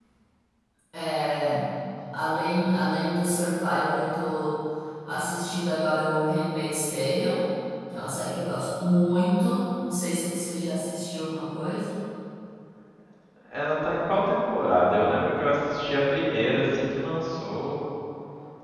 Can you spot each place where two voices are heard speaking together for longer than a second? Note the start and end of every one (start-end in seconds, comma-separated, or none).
none